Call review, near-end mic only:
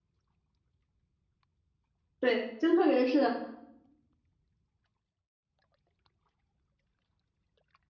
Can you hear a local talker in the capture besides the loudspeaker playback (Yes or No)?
Yes